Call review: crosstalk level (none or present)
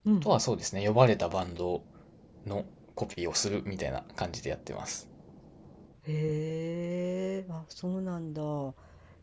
none